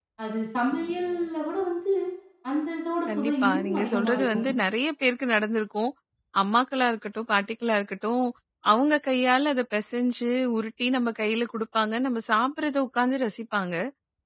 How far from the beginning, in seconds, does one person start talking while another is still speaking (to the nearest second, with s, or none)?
3 s